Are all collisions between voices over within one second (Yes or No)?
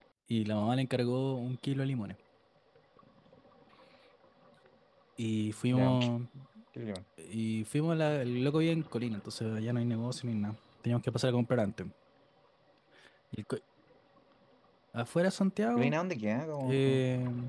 Yes